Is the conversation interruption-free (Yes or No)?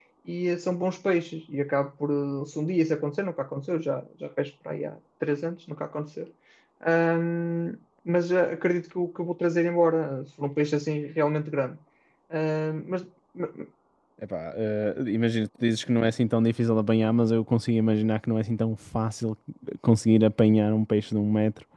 Yes